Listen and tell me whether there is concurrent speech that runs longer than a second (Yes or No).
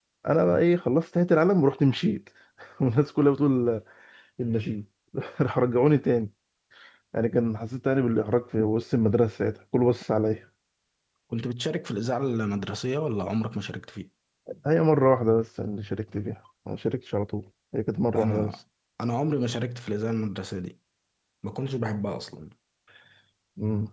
No